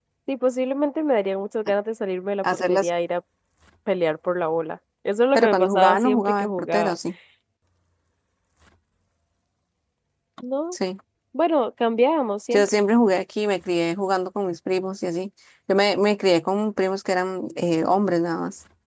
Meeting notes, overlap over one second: present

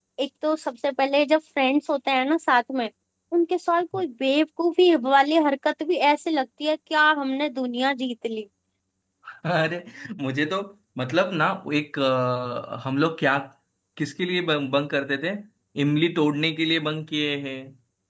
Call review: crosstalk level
none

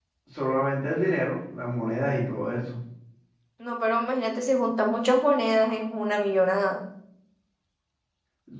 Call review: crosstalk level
none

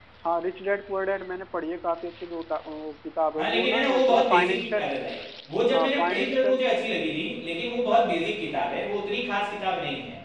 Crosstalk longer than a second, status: present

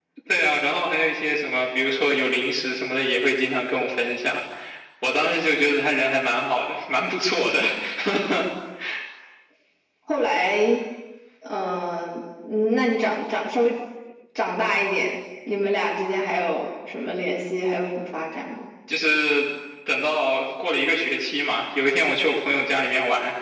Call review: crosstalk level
none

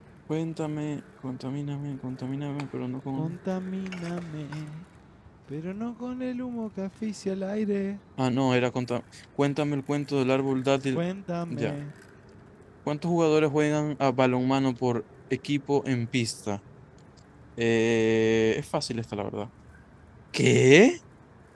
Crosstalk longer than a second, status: none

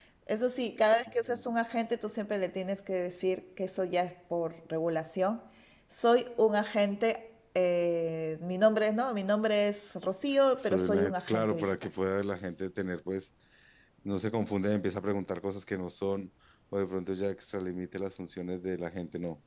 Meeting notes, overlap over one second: present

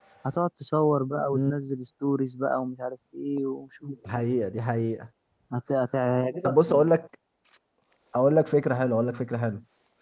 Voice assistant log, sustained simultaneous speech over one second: none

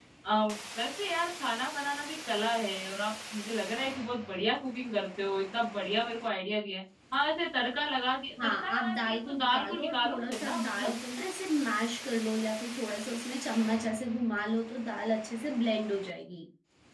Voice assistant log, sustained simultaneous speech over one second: present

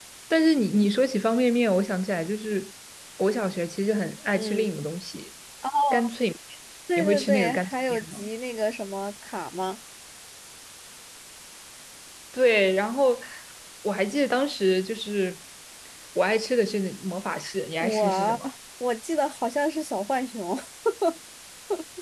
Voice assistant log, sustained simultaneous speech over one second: present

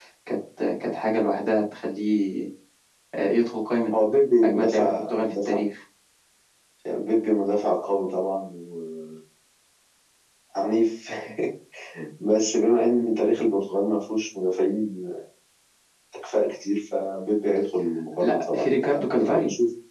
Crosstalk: present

